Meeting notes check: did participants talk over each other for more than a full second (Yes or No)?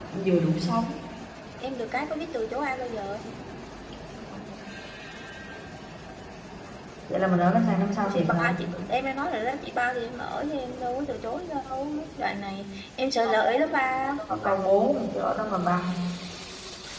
No